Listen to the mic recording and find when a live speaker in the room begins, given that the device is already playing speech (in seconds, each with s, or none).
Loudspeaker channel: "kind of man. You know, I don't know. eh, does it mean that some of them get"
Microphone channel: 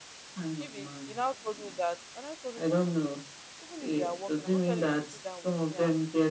0.6 s